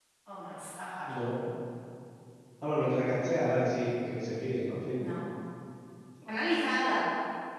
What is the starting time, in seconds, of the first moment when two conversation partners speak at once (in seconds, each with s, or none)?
none